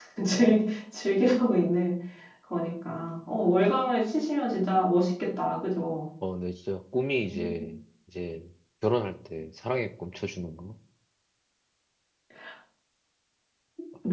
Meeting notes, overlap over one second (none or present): none